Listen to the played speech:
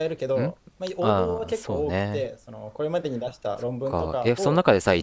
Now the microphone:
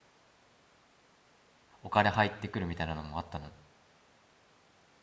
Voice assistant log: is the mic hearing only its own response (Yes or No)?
No